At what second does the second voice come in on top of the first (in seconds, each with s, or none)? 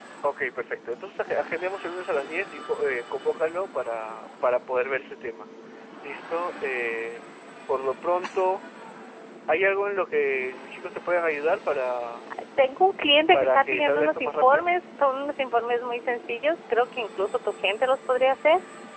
13.3 s